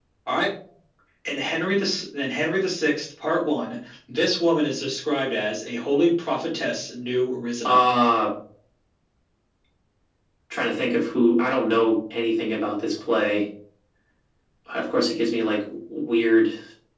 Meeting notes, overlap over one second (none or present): none